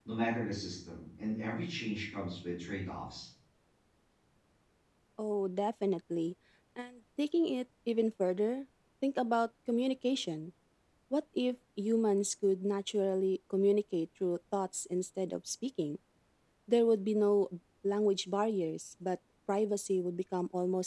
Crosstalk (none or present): none